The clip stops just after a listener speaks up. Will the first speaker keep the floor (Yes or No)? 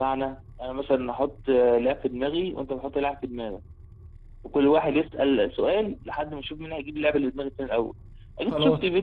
Yes